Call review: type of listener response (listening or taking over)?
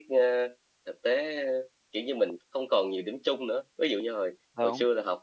listening